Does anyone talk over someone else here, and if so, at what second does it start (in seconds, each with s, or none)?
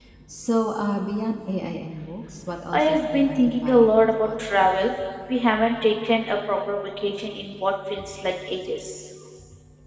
2.7 s